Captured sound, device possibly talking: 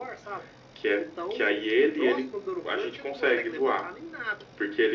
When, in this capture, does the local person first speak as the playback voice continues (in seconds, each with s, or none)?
none